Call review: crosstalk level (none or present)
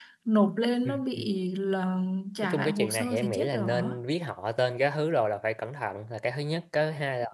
present